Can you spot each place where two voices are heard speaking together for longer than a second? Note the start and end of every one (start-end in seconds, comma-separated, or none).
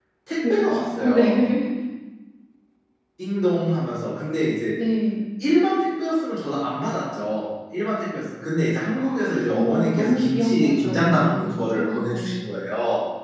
9.5-12.5